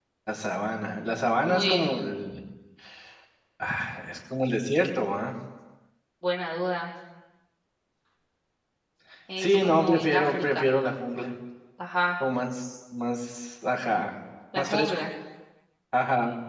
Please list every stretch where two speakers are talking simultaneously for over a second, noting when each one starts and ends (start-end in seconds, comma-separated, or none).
9.4-10.7